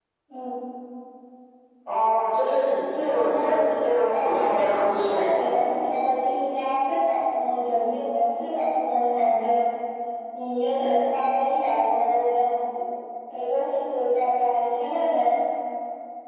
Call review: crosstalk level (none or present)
present